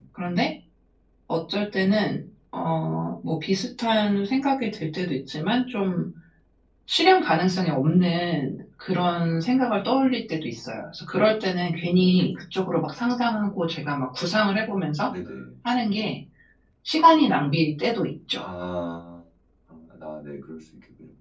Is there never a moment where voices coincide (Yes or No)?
Yes